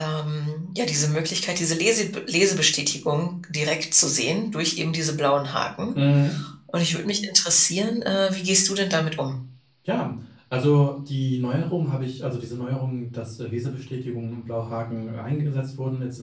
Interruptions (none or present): none